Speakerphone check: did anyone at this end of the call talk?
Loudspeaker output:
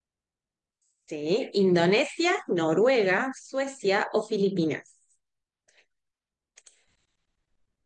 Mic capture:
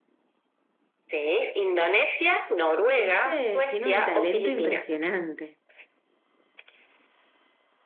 Yes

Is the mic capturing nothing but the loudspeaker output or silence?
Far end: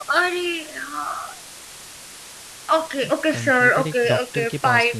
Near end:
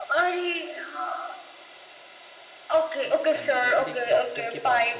Yes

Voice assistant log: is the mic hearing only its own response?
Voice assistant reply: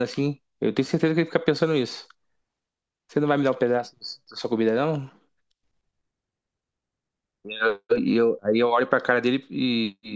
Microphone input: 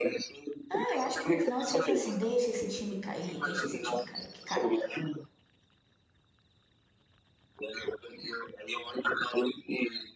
No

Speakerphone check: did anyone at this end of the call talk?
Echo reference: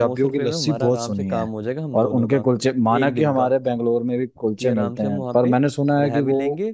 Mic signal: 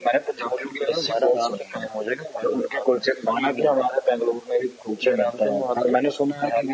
No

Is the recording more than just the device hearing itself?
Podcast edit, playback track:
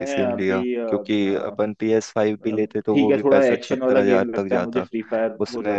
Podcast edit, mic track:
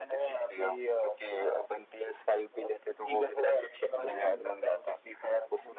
Yes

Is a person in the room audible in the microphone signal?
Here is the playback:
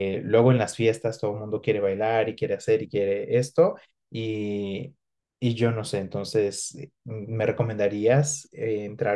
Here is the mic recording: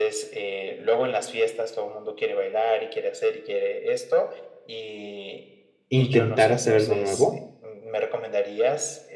Yes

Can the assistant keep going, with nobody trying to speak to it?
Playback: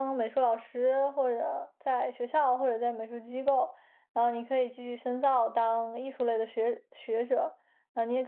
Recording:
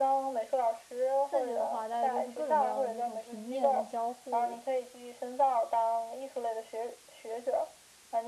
No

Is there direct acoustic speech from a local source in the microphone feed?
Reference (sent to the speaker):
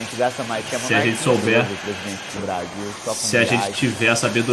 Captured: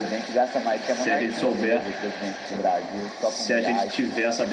No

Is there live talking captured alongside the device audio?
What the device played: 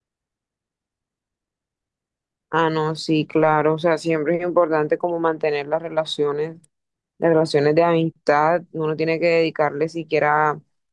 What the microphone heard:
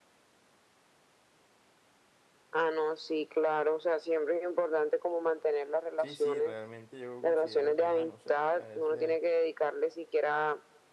Yes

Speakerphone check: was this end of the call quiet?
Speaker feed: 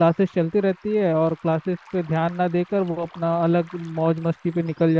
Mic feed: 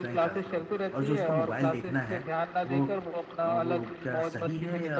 No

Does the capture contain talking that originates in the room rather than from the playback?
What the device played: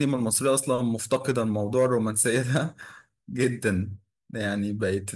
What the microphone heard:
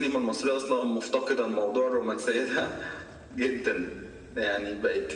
No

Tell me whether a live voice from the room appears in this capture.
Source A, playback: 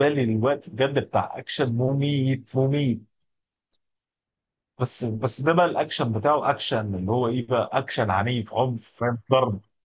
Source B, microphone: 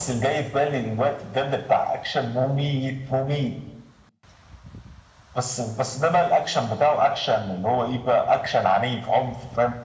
No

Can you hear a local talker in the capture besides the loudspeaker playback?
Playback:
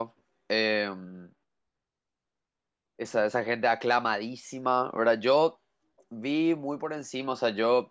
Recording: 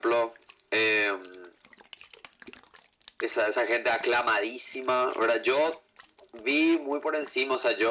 No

